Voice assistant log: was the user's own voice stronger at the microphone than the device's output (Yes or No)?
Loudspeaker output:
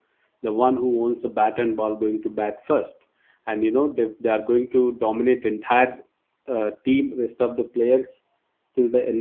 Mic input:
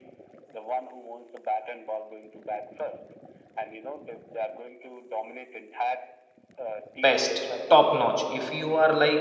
Yes